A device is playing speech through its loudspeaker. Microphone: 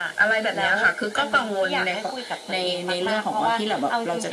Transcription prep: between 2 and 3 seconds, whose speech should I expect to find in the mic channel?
echo only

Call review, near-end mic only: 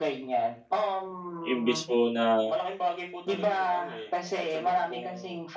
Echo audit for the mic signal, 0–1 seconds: echo only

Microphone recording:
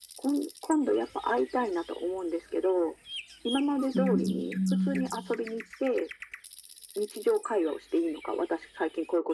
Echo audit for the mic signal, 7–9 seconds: echo only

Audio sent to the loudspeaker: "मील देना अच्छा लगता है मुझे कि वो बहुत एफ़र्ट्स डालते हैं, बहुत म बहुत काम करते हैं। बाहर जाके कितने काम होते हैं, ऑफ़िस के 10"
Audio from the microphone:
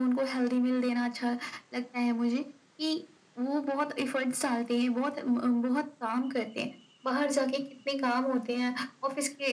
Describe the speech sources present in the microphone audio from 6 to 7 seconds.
echo only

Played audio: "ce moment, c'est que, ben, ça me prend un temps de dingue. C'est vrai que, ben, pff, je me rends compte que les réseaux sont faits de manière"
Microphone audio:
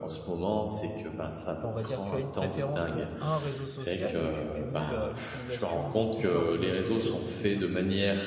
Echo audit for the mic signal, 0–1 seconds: echo only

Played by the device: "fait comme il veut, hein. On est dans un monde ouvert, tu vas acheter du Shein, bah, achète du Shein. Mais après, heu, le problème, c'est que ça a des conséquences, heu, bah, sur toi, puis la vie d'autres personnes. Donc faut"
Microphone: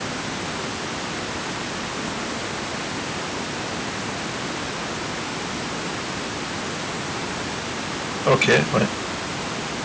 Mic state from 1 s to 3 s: neither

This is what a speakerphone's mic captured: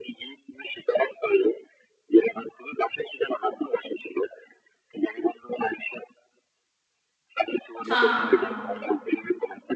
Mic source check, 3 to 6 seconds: echo only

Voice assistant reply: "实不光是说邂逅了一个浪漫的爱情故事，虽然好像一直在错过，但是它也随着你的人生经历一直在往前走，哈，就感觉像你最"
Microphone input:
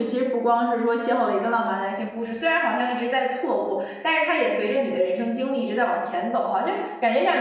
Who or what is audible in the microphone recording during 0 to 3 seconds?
echo only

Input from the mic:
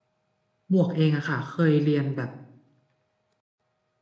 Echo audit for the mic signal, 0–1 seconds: user only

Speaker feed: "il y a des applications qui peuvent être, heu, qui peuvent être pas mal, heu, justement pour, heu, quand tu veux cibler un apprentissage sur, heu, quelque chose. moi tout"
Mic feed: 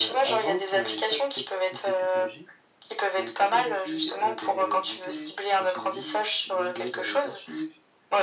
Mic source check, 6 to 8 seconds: both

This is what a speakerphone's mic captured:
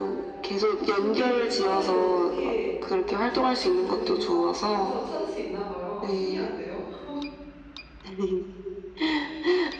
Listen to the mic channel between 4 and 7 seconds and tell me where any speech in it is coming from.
both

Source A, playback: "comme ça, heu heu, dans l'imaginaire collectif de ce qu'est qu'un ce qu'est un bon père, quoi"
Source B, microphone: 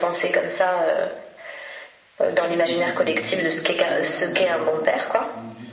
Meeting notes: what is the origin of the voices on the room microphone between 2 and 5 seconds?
both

